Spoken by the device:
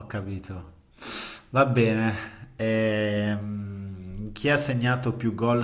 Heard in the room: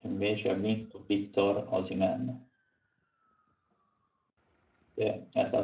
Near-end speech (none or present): present